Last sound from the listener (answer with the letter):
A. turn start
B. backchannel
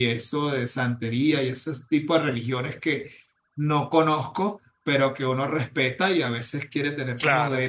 B